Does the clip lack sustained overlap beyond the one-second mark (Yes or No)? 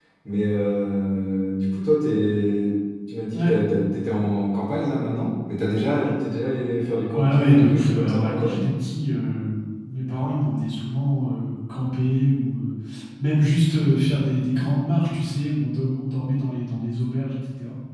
No